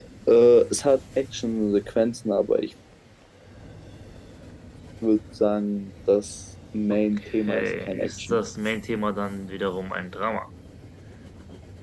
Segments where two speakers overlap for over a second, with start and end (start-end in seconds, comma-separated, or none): 6.9-8.4